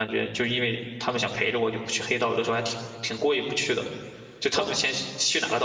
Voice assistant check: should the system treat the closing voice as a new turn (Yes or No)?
No